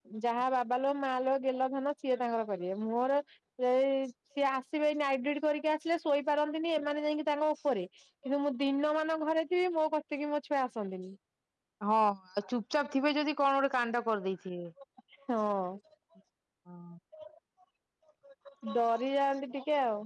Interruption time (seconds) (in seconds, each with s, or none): none